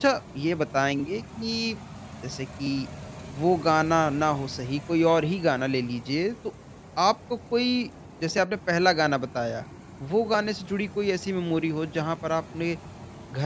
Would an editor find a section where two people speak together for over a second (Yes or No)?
No